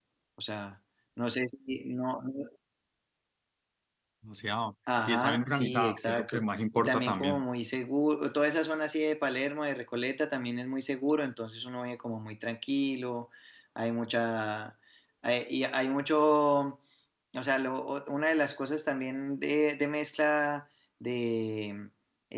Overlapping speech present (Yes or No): Yes